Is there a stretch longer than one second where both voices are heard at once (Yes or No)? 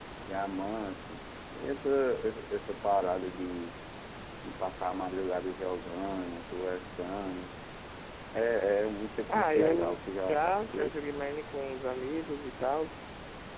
Yes